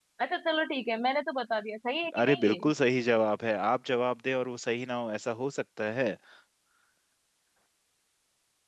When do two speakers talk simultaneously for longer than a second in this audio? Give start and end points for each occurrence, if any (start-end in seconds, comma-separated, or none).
none